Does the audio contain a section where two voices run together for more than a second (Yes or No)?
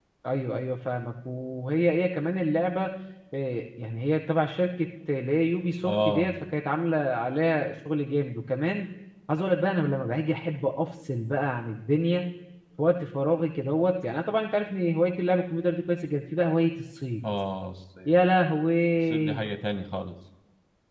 No